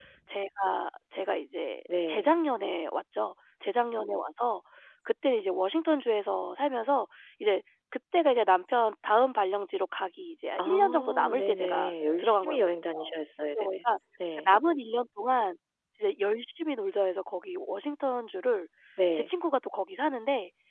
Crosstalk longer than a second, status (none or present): present